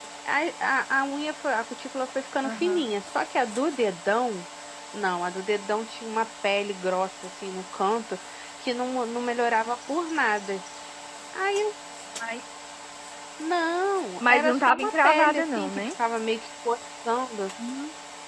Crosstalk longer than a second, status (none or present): present